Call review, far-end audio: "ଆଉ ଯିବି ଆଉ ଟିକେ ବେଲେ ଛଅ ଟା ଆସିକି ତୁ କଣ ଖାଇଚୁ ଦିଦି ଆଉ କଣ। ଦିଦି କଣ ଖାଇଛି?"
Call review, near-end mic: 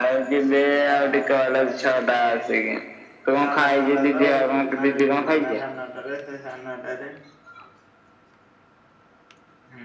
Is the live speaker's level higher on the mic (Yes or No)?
No